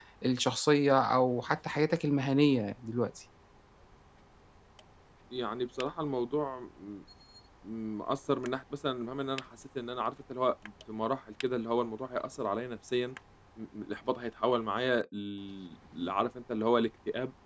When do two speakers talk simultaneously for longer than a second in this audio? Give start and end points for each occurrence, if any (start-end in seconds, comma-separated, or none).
none